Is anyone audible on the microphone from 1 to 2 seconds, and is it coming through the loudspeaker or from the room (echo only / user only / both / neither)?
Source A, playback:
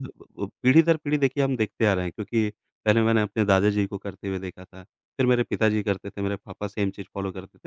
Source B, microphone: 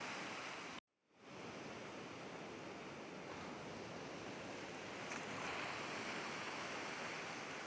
neither